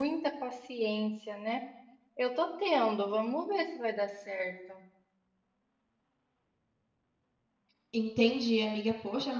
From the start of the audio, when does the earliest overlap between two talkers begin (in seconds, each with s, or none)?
none